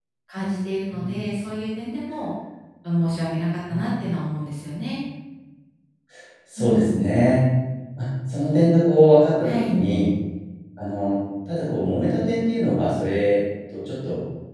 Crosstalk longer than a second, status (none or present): none